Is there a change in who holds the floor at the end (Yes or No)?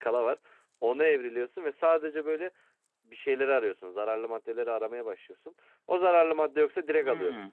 Yes